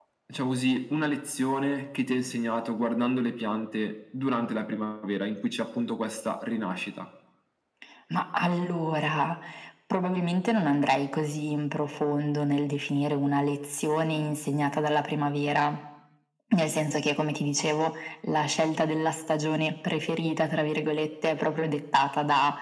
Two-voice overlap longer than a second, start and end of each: none

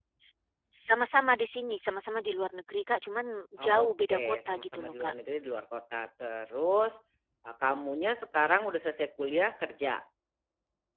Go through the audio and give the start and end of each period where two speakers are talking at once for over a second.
3.6-5.1

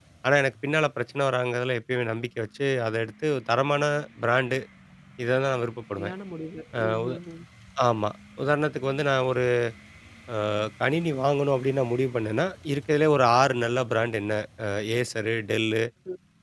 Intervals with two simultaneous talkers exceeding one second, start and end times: none

